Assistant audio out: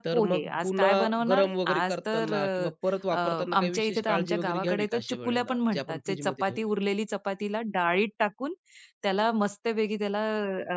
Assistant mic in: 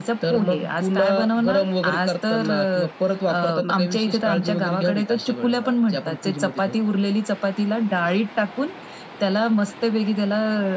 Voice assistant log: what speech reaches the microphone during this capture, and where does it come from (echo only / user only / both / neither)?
echo only